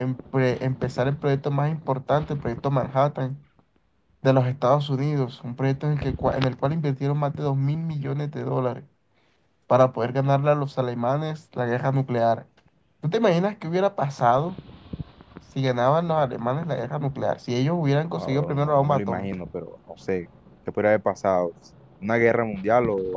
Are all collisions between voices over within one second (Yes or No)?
No